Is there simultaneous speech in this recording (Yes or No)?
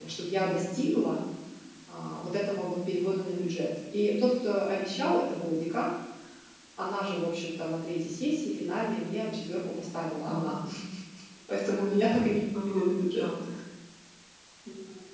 Yes